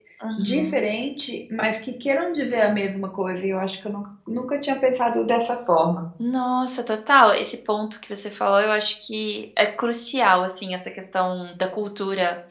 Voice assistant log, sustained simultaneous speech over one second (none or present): none